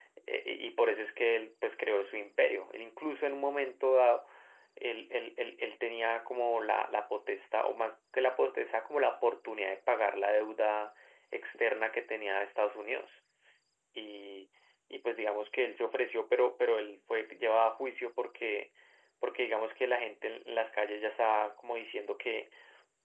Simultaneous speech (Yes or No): No